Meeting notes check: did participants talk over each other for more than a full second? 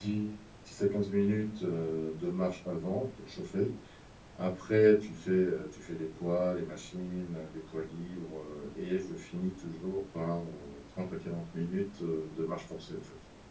No

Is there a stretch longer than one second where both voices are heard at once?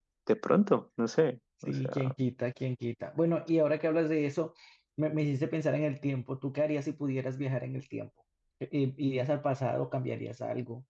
No

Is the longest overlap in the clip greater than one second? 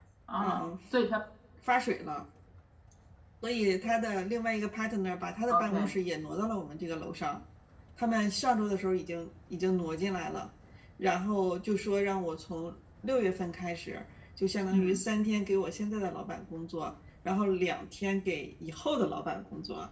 No

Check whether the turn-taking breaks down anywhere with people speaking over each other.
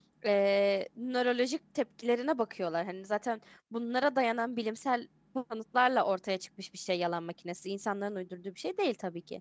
No

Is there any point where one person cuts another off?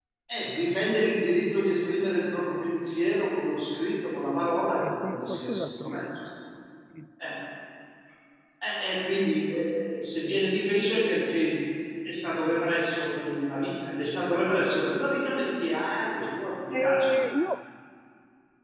Yes, from 4.9 s

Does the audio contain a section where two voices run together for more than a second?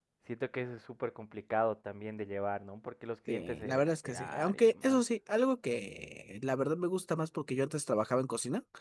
Yes, from 3.3 s

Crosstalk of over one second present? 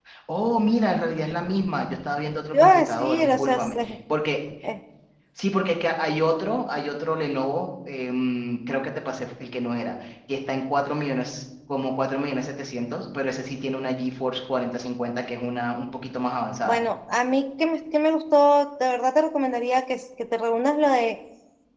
Yes, from 2.5 s

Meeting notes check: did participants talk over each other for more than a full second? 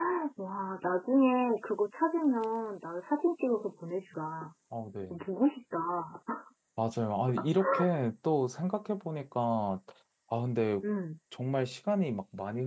No

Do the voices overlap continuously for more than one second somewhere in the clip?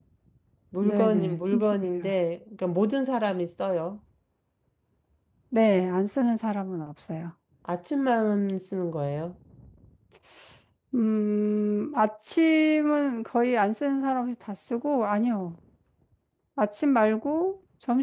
Yes, from 0.8 s

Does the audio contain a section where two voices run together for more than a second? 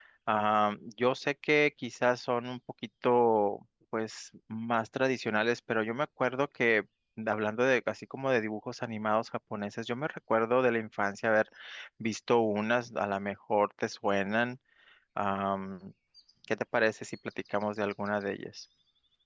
No

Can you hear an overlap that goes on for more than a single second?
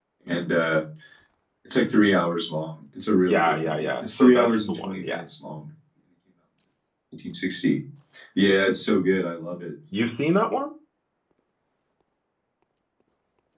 Yes, from 3.2 s

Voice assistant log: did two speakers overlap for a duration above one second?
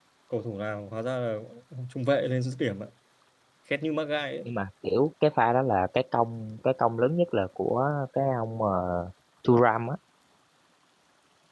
No

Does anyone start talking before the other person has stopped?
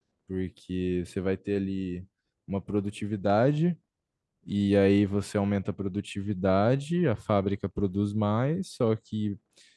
No

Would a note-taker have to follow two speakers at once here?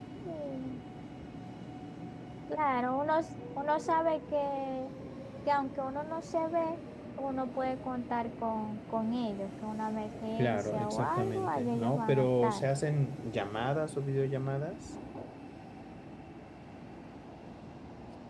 Yes, from 10.4 s

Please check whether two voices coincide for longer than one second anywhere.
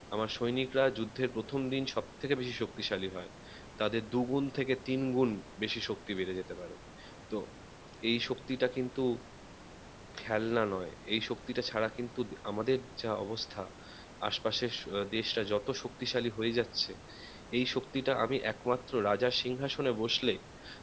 No

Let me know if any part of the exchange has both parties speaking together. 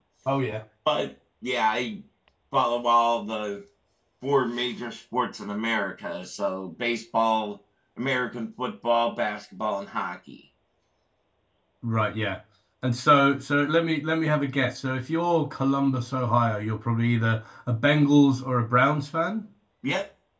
No

